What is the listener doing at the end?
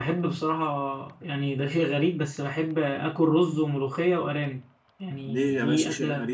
taking over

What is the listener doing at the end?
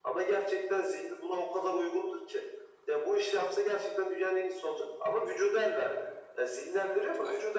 listening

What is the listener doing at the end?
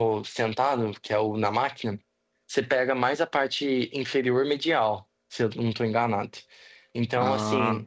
listening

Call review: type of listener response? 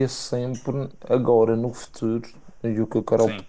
listening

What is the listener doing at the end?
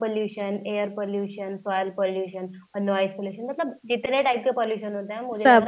listening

